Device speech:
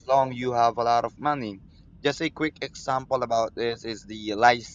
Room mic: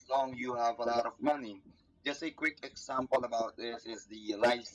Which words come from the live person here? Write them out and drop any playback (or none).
none